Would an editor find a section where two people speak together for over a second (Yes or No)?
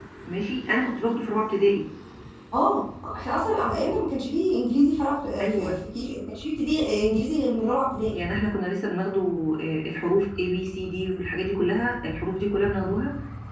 No